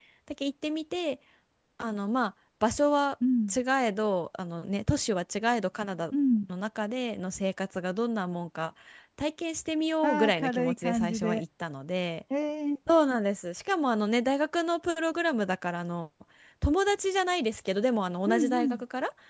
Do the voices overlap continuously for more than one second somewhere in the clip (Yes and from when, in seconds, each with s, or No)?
Yes, from 10.0 s